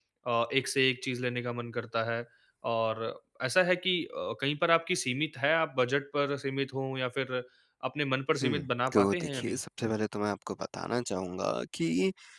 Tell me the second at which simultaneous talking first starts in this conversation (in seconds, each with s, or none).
8.4 s